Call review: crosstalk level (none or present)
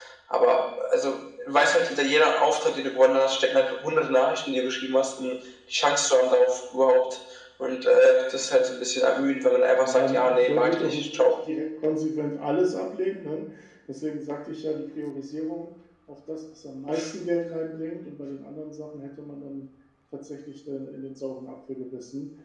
present